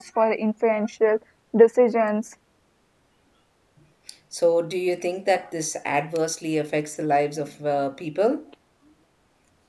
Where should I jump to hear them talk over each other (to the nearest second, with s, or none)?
none